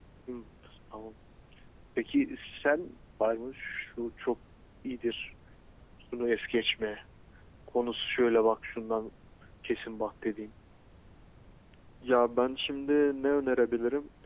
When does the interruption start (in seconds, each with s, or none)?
none